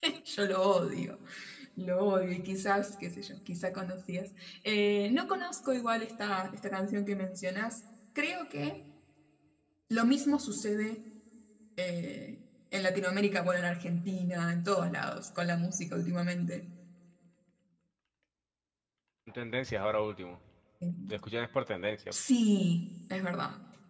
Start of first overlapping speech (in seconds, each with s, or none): none